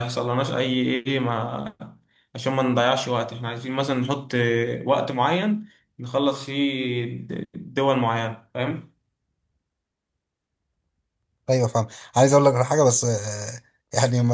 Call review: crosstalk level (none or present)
none